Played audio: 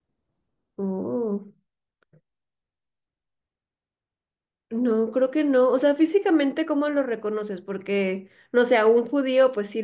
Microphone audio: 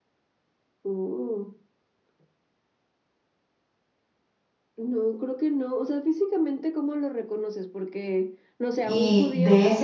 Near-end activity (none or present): present